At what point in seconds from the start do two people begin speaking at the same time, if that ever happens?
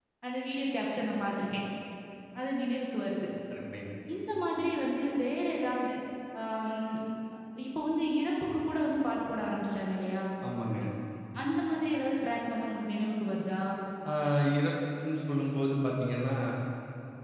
none

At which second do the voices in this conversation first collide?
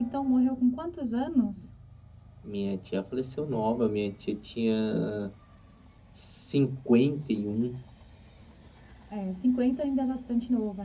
none

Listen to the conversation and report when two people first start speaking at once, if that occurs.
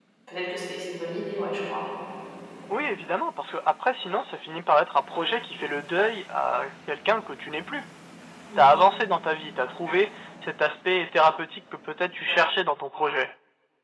none

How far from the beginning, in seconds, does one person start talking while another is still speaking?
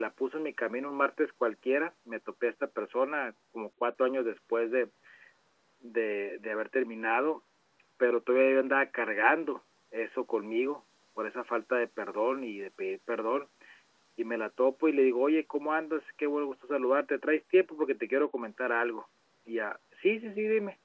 none

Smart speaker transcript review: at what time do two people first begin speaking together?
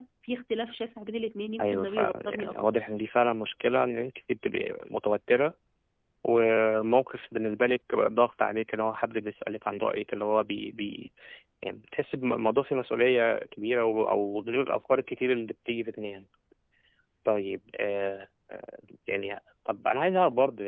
2 s

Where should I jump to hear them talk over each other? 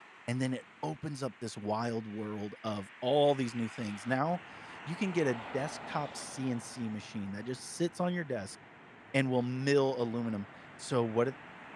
none

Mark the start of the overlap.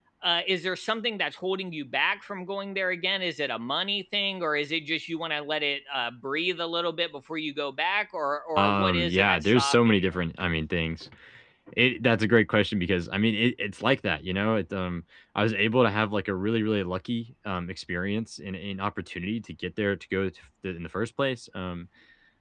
9 s

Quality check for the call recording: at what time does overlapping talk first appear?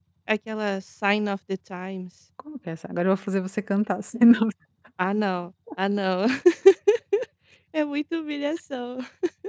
none

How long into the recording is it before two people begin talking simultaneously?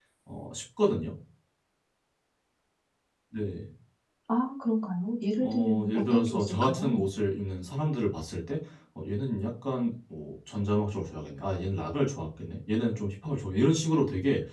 5 s

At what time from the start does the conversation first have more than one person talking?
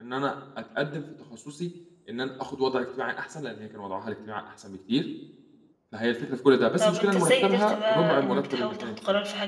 7 s

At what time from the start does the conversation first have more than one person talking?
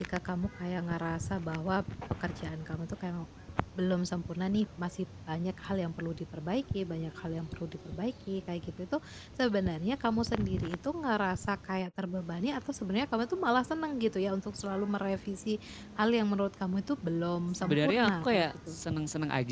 18 s

